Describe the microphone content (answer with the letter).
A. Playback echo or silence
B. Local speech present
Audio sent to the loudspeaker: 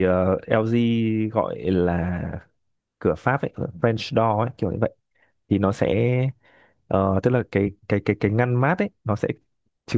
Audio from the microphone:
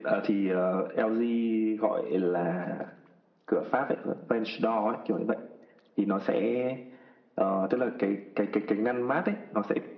A